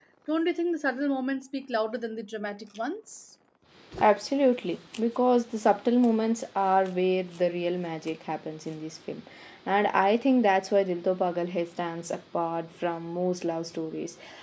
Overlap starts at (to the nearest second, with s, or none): none